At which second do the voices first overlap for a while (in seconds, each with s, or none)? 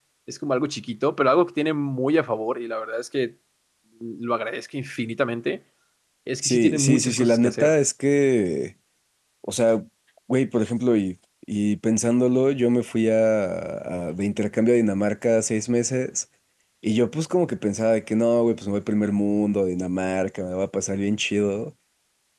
6.4 s